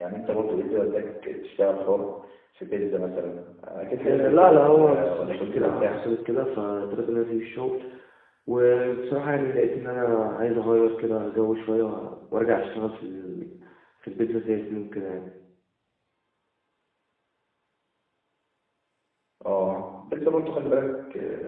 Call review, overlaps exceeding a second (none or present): present